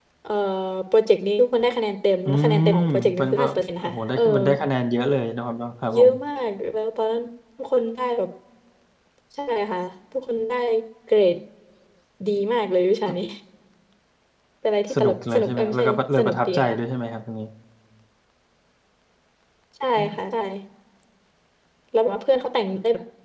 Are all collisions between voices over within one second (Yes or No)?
No